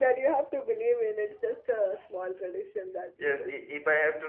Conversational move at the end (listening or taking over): taking over